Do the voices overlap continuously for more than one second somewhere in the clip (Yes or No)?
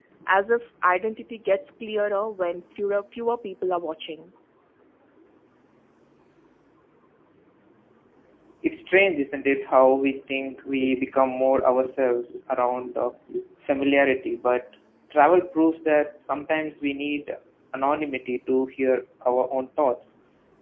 No